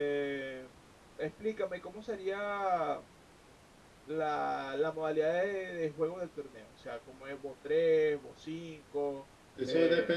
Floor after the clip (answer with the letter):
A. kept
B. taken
B